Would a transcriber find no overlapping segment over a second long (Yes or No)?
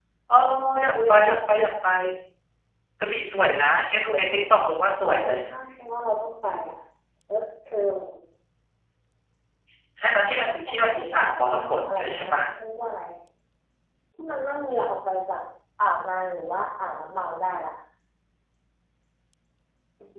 No